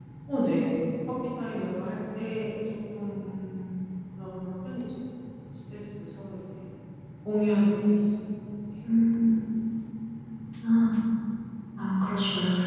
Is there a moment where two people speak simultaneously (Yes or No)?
No